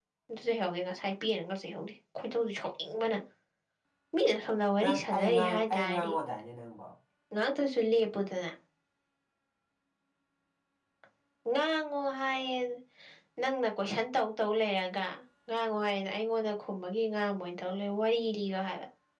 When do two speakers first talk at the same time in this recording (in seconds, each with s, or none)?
4.8 s